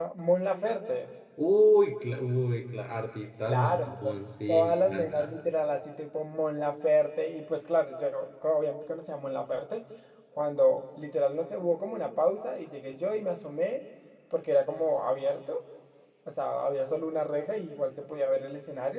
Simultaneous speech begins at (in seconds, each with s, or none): 3.5 s